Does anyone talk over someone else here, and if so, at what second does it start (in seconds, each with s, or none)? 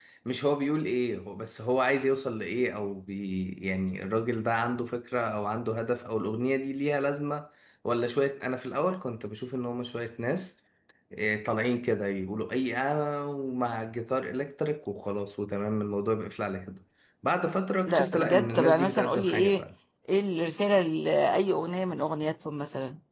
17.9 s